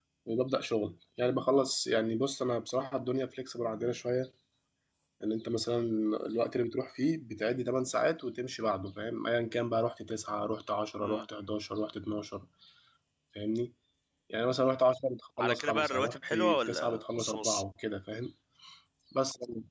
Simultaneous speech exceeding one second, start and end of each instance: 15.4-17.6

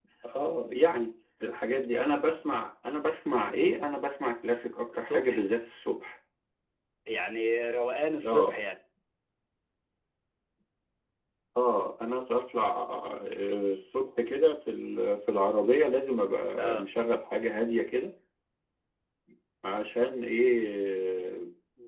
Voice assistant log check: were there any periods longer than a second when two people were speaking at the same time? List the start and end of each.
none

